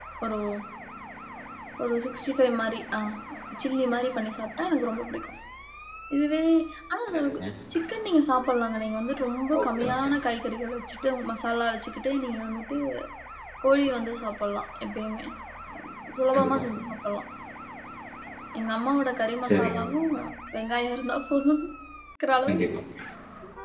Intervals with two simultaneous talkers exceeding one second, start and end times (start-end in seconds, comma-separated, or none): none